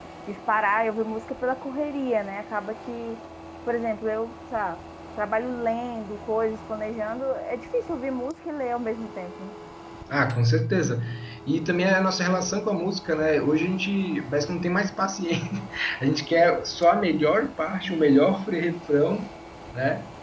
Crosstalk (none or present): none